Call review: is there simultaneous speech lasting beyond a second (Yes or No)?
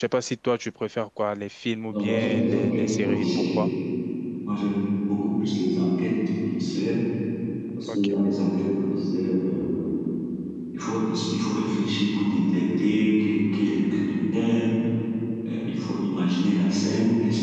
Yes